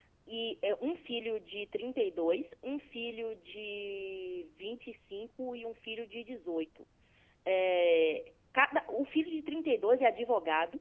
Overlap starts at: none

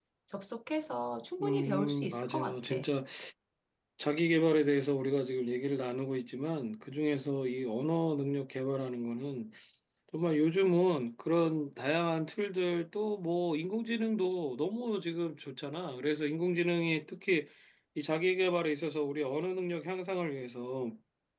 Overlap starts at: 1 s

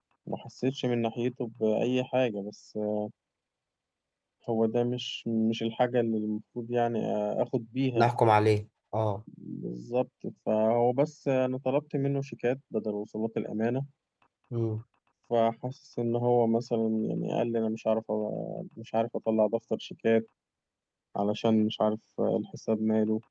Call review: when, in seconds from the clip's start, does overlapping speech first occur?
none

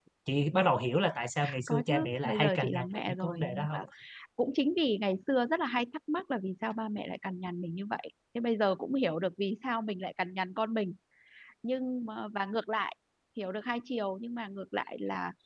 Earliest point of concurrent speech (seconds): 2 s

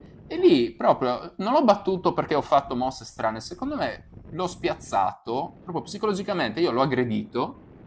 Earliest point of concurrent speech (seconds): none

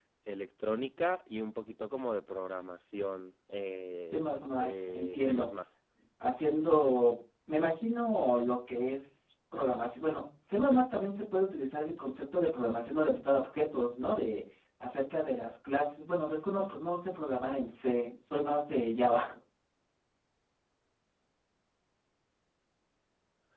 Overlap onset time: 4 s

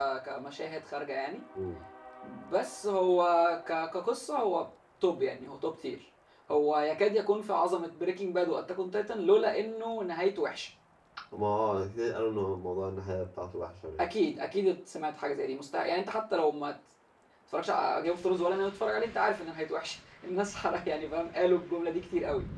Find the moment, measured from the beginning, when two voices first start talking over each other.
none

